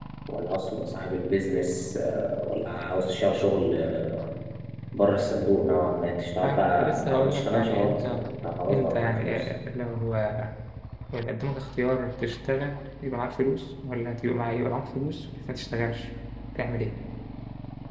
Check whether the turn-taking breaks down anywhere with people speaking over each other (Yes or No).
Yes